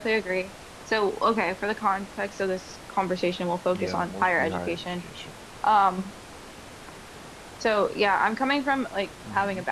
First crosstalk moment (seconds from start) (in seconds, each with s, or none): 3.7 s